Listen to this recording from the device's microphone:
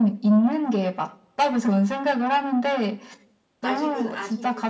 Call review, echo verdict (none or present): present